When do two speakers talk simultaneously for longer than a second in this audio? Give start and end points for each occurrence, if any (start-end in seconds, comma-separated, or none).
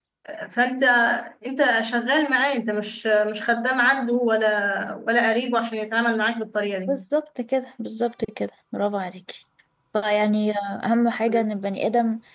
none